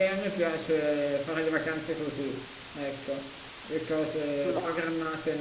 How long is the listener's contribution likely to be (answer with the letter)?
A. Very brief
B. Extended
A